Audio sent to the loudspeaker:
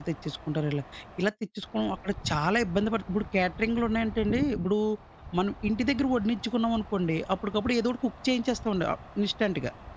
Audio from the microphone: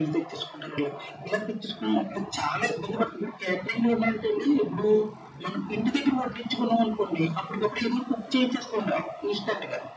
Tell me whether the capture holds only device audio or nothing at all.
Yes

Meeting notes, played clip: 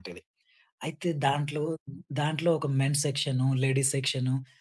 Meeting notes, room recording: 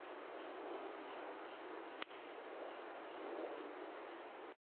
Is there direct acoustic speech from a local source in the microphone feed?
No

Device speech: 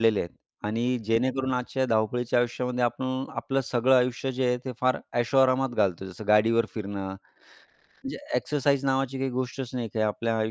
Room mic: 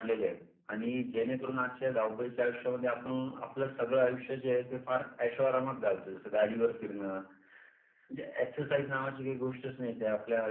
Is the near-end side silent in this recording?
Yes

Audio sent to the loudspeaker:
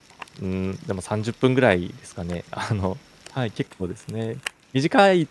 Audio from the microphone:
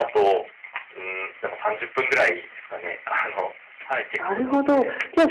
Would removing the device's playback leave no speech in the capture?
No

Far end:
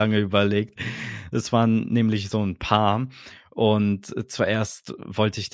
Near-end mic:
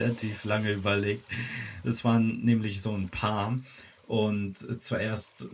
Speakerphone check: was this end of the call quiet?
Yes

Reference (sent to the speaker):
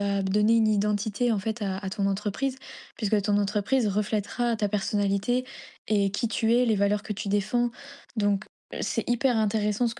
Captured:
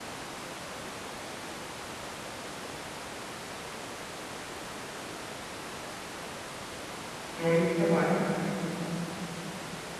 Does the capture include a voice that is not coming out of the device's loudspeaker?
Yes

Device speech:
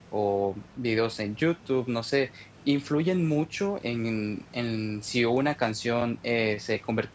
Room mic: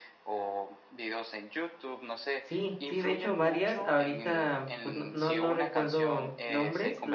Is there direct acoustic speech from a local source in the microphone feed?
Yes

